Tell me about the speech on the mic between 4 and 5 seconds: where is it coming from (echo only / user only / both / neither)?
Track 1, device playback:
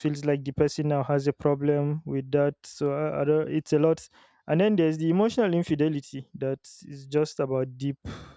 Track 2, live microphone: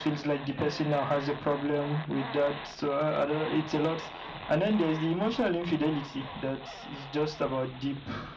echo only